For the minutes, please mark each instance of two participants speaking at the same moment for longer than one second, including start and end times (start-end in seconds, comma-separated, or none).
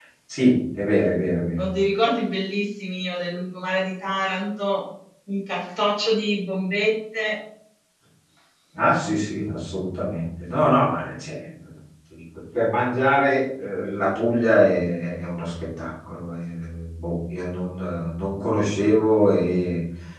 none